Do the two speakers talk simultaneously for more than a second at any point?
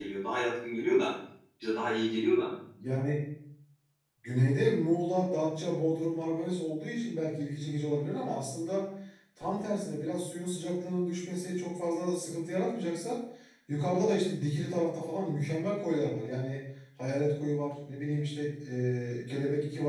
No

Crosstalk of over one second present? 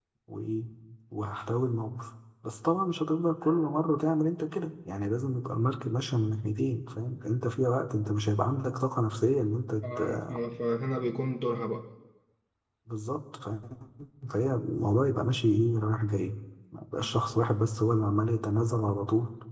No

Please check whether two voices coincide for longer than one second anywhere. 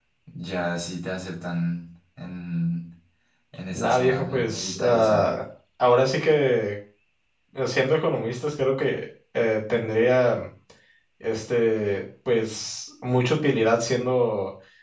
Yes, from 3.7 s

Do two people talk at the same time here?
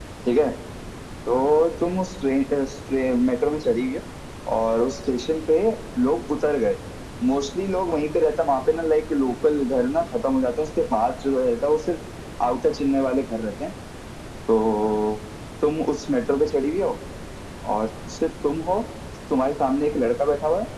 No

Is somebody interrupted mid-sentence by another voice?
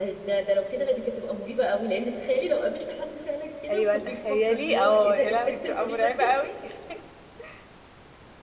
Yes, from 3.7 s

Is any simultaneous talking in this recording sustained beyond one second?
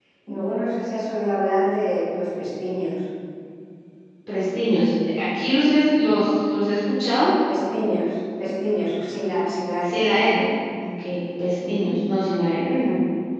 No

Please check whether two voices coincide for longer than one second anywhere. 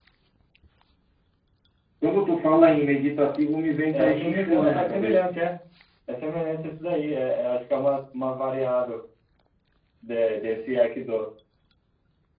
Yes, from 3.9 s

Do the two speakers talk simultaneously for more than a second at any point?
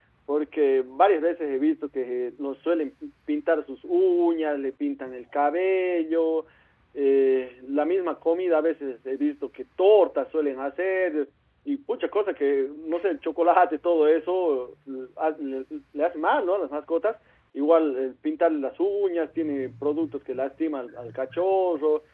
No

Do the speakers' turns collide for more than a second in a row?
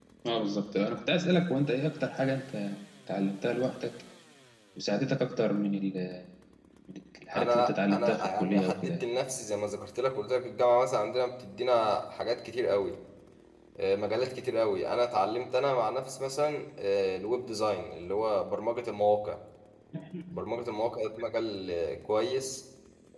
Yes, from 7.3 s

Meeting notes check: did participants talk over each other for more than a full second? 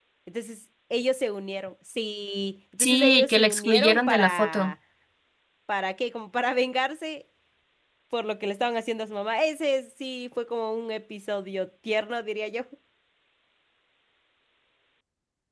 Yes, from 2.8 s

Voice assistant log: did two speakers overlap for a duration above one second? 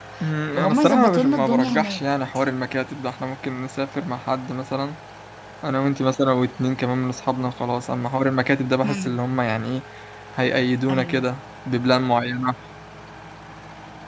Yes, from 0.5 s

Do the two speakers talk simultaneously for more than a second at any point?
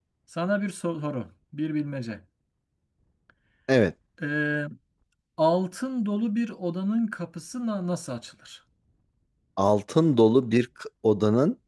No

